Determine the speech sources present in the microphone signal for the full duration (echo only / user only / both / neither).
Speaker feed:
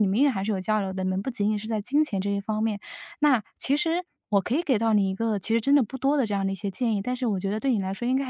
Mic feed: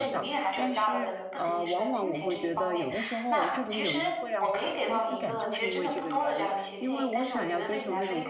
both